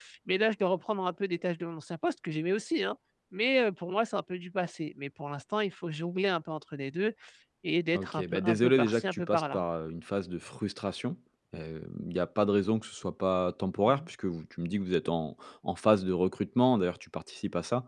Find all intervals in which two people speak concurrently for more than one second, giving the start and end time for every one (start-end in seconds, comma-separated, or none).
7.9-9.6